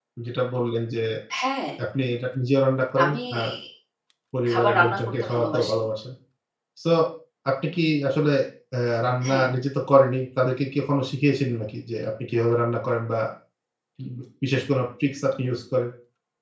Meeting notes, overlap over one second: present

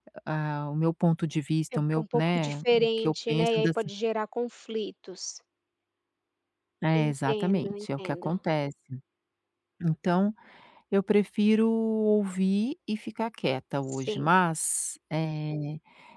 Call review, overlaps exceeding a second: present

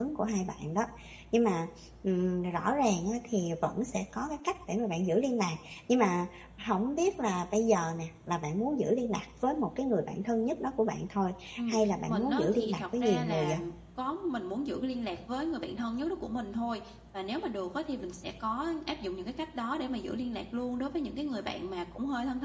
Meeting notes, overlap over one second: present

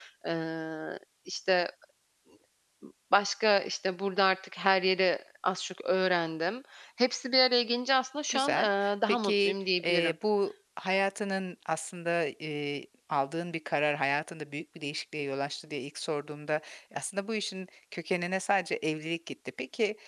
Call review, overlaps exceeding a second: present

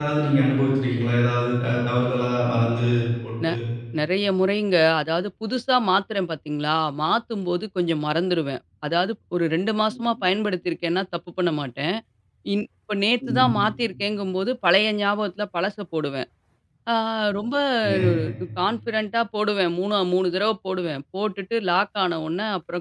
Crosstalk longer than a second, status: none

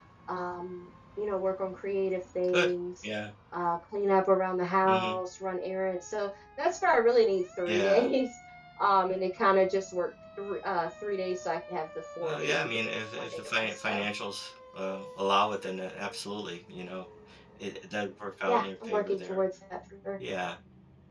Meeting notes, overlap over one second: present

